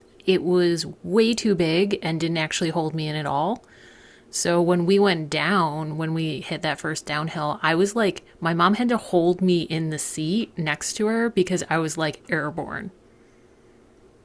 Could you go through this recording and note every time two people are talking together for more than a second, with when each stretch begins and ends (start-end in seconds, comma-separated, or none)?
none